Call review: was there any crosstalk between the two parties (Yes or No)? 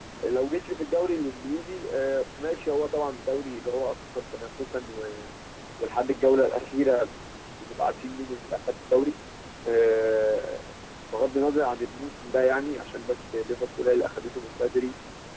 No